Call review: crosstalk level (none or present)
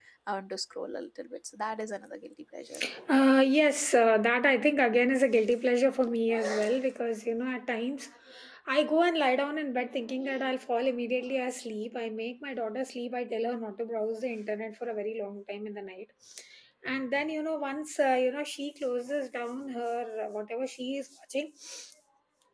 none